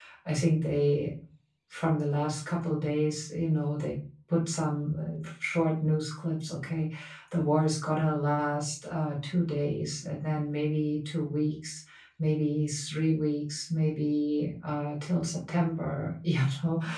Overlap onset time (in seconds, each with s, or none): none